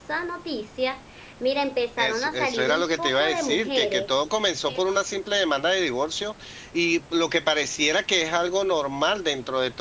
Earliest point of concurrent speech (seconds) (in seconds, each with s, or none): 2.0 s